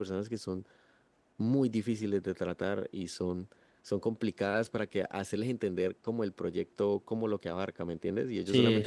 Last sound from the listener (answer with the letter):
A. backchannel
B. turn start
A